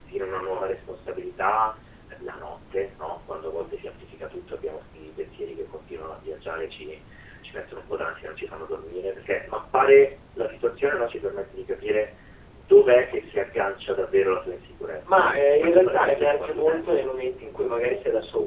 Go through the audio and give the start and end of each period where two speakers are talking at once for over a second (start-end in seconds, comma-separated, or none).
15.1-17.0